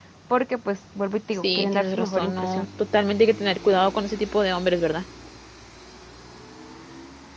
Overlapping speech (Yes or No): Yes